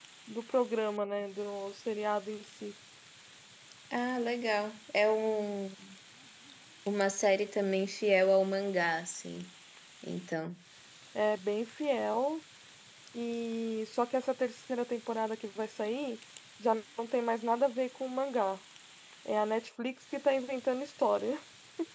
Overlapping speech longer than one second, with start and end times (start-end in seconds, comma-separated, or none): none